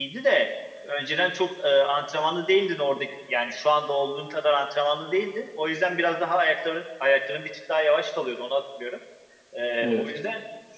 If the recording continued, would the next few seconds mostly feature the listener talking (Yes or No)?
No